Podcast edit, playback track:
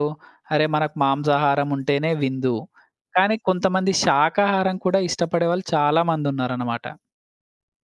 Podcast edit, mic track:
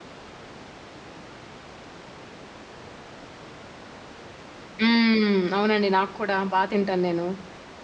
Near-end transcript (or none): హ్మ్. అవునండి. నాకు కూడా బా తింటాను నేను.